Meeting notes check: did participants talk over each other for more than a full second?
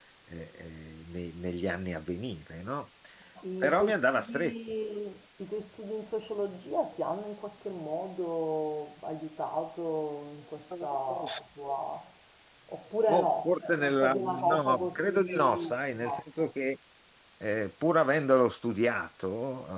Yes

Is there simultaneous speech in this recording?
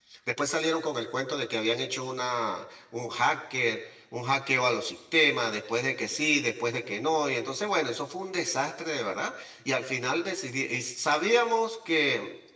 No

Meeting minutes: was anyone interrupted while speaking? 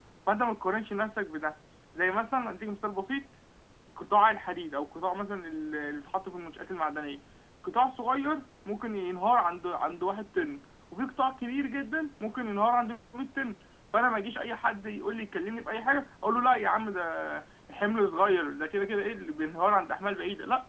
No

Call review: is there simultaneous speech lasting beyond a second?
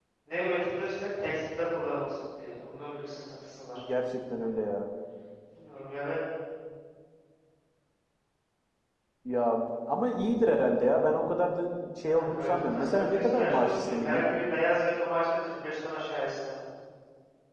Yes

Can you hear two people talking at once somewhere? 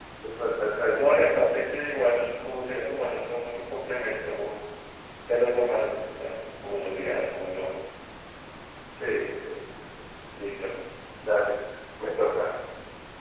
No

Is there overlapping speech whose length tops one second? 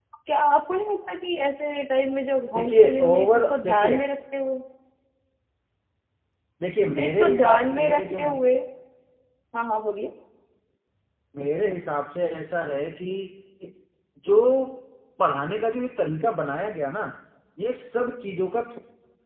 Yes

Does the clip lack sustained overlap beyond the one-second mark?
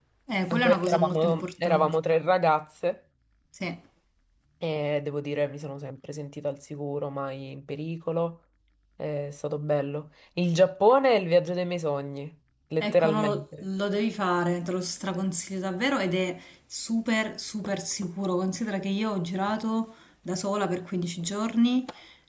No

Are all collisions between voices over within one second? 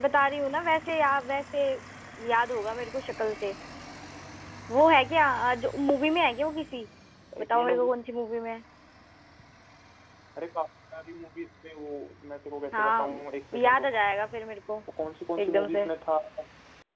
Yes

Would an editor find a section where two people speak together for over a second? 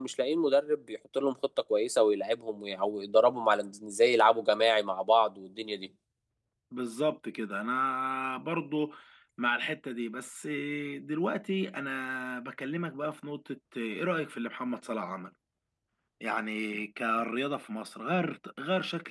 No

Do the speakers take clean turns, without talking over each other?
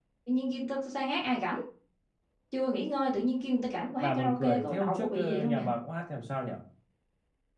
No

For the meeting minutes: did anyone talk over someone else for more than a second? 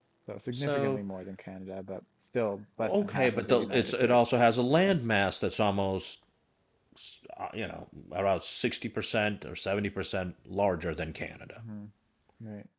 Yes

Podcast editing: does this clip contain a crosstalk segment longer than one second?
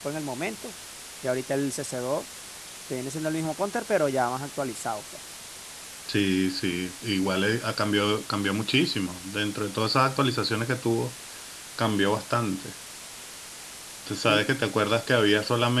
No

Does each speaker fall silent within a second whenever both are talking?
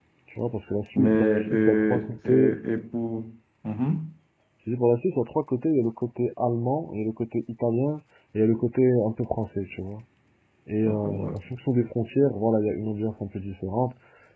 No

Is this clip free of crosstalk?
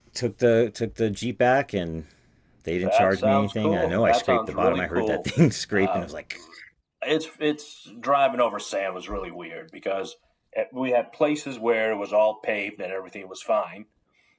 No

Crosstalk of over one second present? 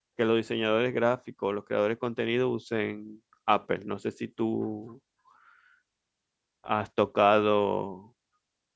No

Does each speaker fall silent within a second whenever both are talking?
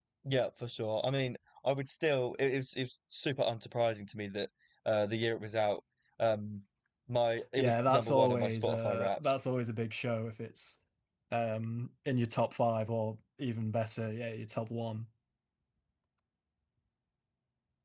No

